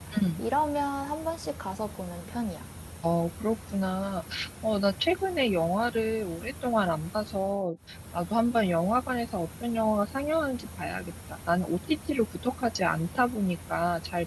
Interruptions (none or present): none